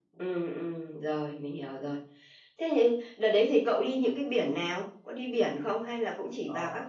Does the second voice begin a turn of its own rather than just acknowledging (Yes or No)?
Yes